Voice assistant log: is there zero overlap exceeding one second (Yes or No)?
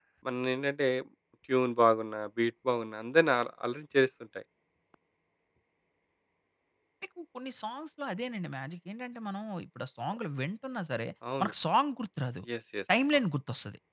Yes